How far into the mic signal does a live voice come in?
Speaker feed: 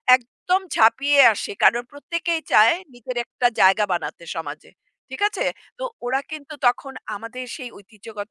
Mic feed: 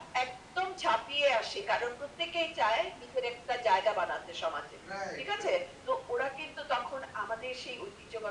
4.8 s

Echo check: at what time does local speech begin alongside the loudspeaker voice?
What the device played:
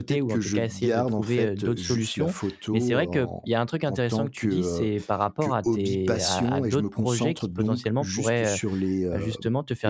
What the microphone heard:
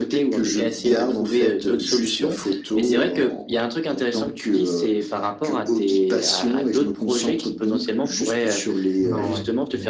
9.0 s

